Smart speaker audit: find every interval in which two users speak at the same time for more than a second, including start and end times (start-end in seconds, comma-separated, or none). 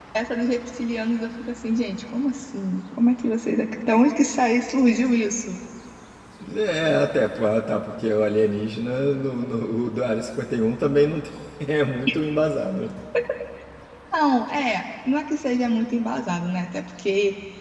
none